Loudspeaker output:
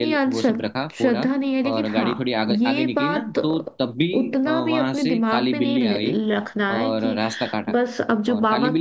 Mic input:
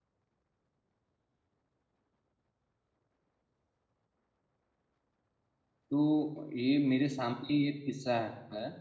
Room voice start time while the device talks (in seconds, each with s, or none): 5.9 s